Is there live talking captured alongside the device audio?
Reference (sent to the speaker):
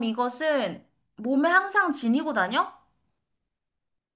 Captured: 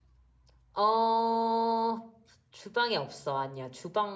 Yes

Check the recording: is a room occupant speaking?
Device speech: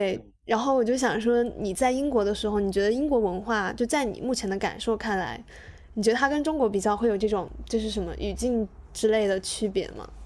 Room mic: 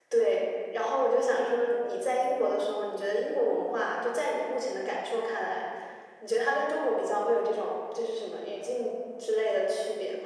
No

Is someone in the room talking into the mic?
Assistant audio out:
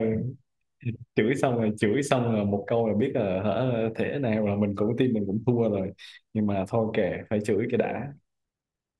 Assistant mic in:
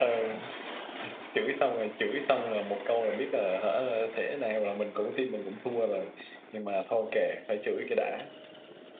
No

